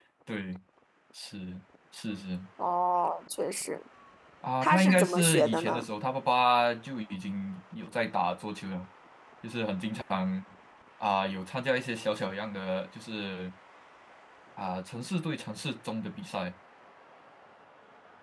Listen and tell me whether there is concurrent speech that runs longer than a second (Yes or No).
Yes